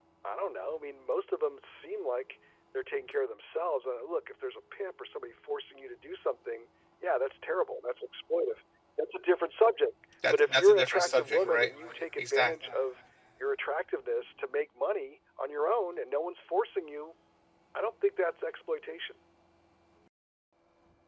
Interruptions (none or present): present